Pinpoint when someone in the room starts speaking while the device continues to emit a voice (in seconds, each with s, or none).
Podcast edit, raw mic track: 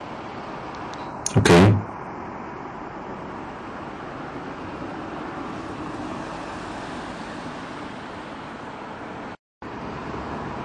1.4 s